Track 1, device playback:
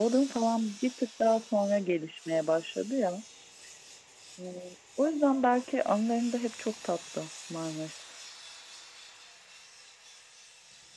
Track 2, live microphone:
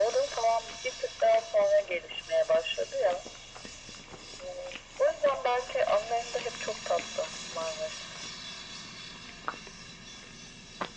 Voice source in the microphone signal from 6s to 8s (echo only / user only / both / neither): echo only